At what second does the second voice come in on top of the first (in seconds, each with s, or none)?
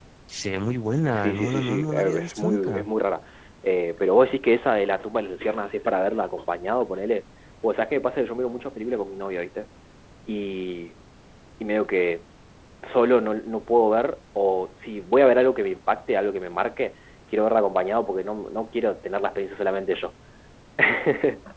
1.1 s